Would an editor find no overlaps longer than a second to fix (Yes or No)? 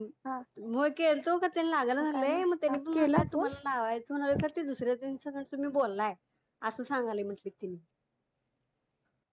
No